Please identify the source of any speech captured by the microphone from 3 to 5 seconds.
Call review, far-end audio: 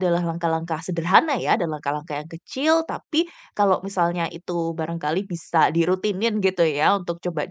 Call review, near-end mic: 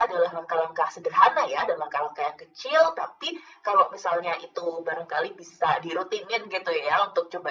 echo only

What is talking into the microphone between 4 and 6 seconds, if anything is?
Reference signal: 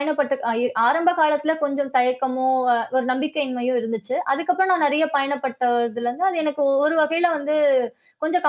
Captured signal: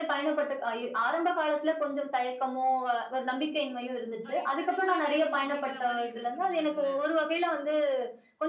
both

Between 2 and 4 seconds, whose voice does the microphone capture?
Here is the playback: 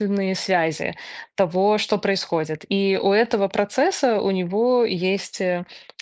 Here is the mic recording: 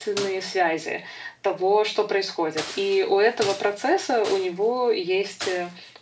echo only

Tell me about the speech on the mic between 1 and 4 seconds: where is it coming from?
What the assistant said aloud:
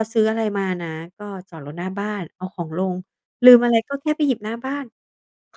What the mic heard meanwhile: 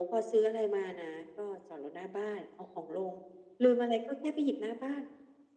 echo only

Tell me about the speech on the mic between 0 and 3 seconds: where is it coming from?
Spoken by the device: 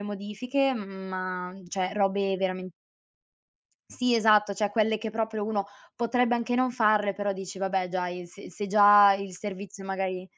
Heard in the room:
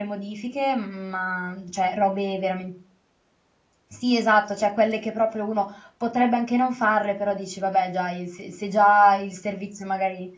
echo only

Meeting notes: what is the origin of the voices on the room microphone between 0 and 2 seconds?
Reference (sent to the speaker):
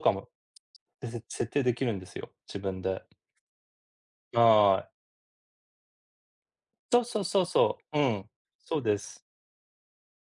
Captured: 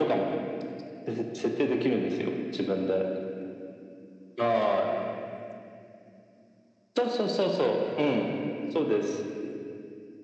echo only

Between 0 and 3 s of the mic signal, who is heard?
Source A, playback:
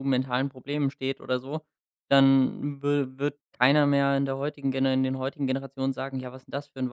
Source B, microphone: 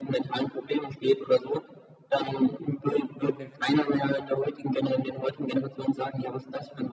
echo only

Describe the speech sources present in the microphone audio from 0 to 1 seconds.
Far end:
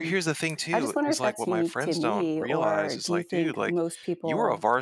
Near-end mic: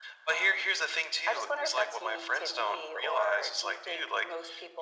echo only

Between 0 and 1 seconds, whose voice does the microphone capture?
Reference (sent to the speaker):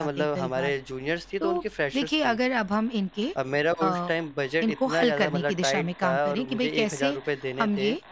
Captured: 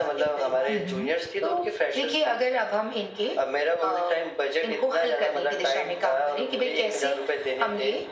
both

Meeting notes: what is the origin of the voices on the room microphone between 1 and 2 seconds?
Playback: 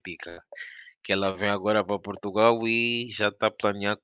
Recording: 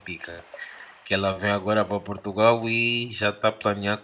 echo only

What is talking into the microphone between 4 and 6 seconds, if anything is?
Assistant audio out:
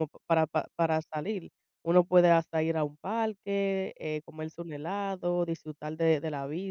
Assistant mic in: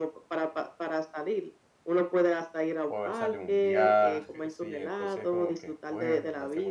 both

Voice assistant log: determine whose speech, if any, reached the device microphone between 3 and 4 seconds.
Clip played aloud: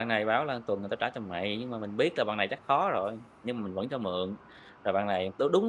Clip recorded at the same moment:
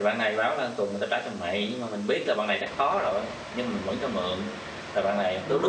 echo only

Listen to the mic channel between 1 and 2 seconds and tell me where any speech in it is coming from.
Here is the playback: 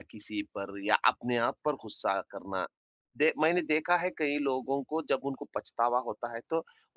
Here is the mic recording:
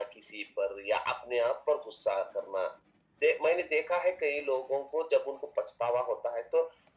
echo only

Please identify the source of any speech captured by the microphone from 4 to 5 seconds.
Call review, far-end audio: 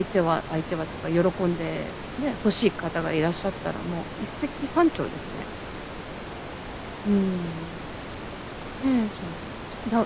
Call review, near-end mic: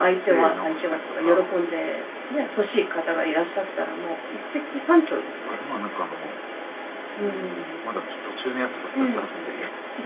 echo only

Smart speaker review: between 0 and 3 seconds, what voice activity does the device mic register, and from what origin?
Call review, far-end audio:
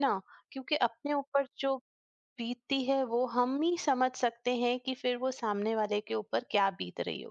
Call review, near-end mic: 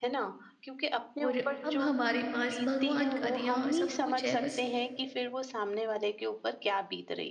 both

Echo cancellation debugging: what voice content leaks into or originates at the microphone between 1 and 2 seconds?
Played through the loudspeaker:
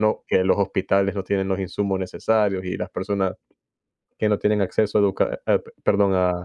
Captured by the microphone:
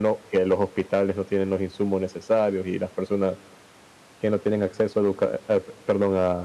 echo only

